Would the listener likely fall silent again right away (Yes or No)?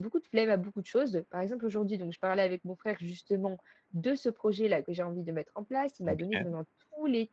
Yes